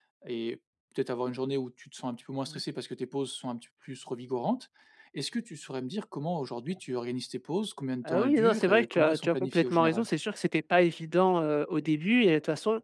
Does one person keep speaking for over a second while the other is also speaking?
Yes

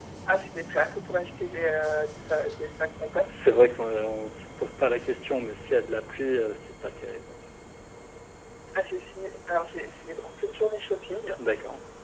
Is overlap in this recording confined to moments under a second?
Yes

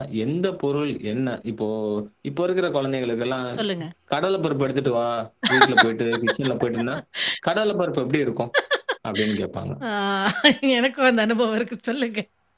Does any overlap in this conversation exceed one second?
No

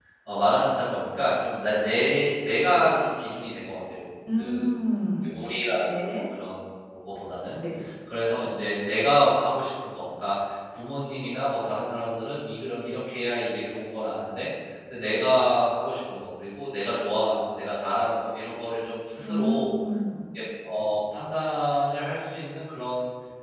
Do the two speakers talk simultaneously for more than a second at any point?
No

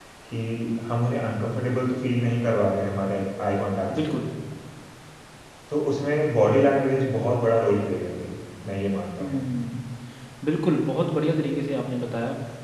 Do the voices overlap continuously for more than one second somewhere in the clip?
No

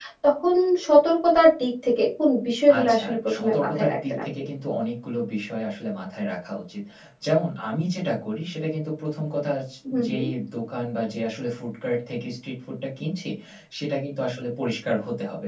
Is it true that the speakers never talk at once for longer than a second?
No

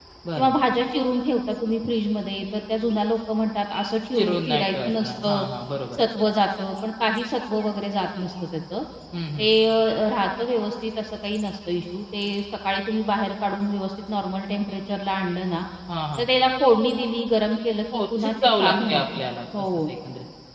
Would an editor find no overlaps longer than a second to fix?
No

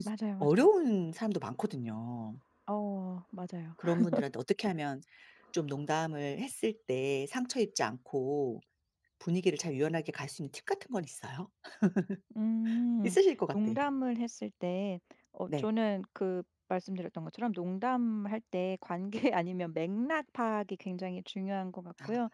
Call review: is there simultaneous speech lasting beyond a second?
No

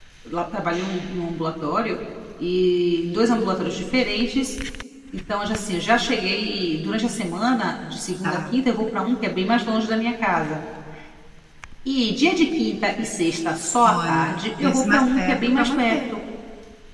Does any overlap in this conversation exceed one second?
Yes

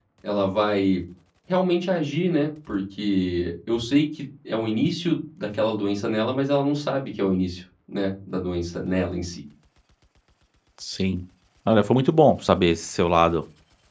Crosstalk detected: No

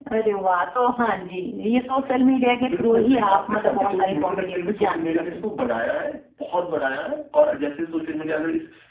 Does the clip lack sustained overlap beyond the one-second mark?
No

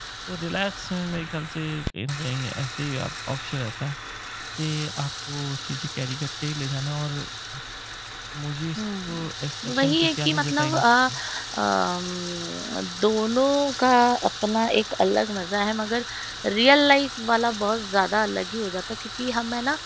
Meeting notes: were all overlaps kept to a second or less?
No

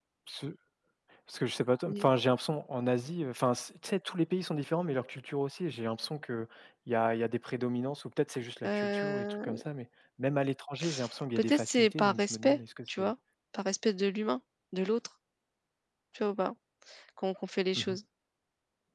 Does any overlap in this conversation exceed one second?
Yes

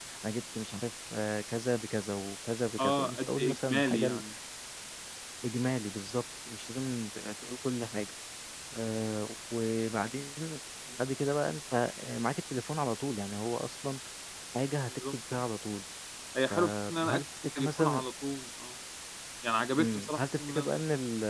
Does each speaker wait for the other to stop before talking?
No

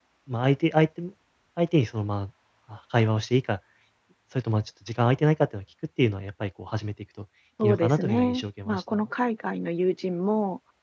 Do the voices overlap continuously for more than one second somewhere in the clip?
Yes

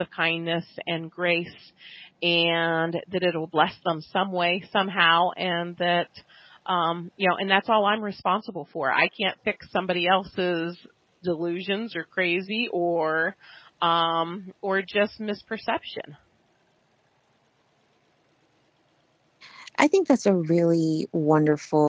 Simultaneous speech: No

